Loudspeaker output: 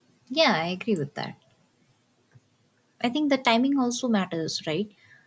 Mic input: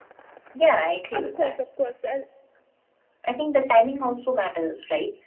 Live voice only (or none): Of course, of course. And